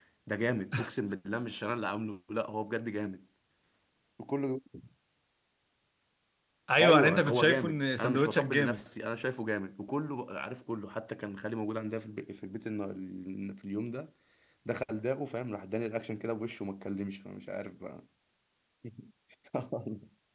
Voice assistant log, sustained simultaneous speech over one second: present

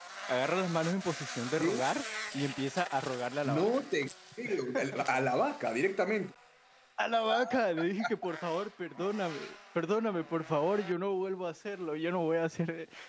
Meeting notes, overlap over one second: none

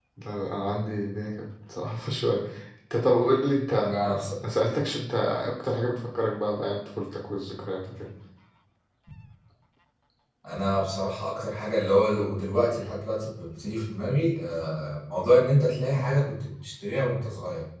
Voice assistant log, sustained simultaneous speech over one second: none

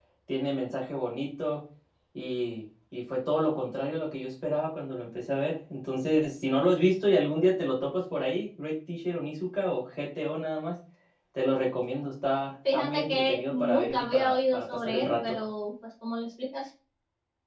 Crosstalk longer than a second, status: present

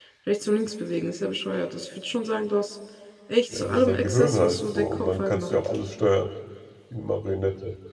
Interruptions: present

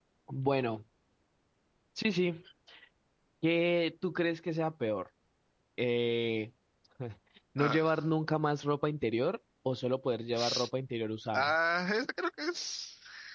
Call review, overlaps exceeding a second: none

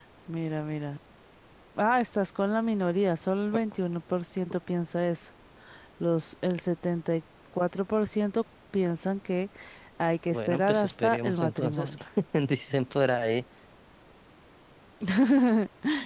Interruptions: present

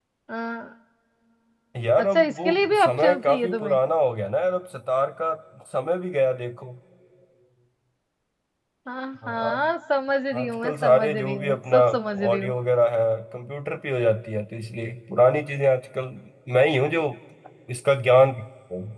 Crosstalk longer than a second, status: present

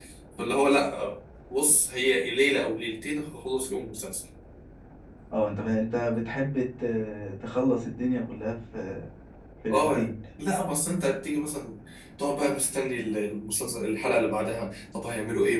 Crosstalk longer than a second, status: none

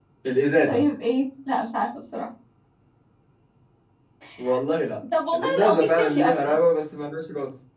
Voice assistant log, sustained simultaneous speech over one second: present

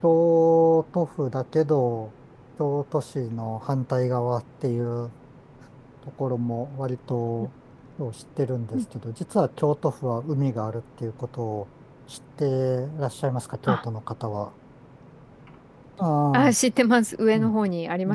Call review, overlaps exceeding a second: none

